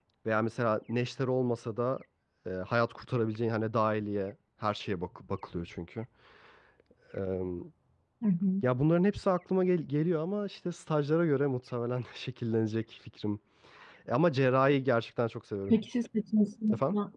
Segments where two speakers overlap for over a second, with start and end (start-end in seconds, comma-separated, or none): none